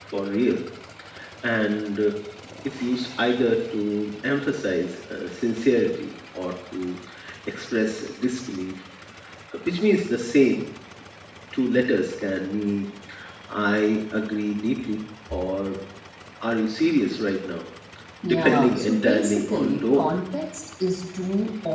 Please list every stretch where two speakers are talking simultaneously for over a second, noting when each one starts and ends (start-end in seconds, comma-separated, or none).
18.3-20.1